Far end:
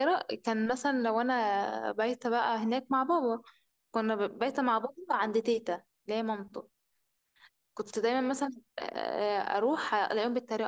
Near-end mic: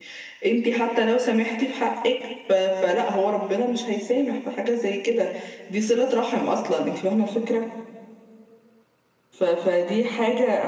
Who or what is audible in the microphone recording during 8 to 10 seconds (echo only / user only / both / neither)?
user only